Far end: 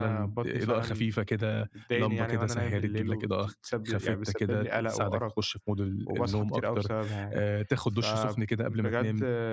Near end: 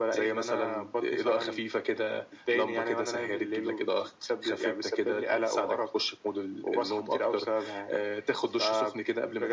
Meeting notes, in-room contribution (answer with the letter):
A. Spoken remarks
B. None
B